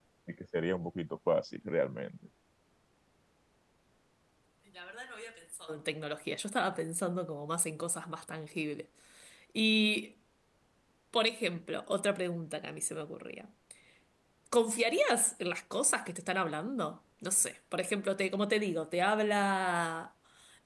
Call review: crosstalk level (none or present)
none